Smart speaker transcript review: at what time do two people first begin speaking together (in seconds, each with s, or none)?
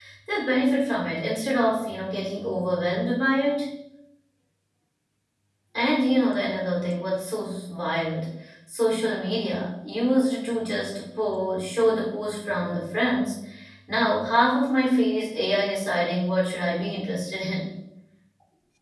none